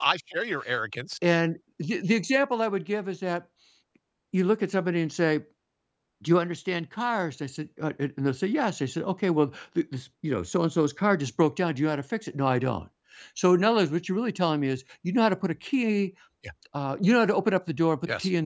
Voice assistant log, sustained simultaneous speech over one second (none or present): none